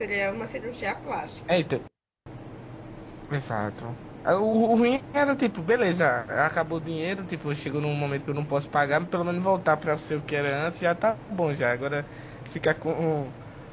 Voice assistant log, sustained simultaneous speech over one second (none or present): none